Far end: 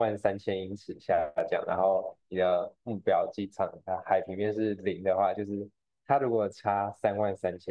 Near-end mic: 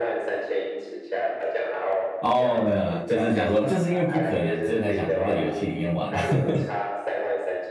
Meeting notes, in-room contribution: present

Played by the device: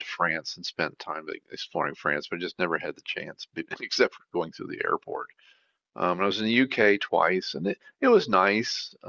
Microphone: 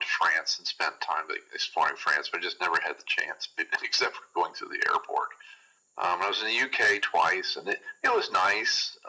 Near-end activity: none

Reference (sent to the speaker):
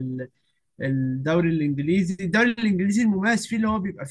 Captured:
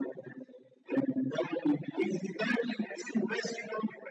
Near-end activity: none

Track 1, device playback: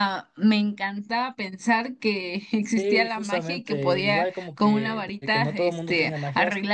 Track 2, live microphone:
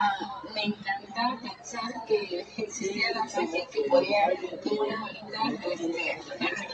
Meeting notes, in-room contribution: none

